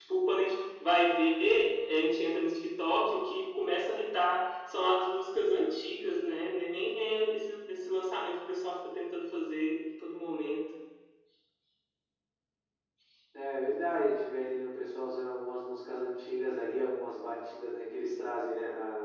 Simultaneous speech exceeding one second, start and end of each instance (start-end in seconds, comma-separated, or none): none